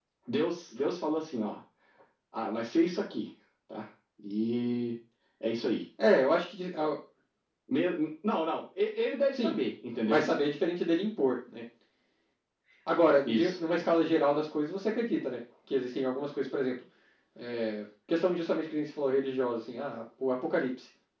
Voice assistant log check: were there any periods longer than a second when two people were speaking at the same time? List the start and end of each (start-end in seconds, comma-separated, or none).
none